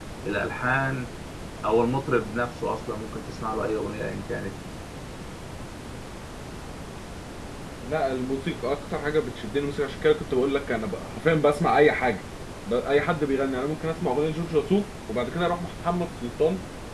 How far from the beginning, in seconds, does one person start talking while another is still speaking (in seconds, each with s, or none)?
none